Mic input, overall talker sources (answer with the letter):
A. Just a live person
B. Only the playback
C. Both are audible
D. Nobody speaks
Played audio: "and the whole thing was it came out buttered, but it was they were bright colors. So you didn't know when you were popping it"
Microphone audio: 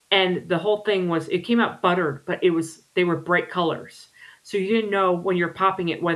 B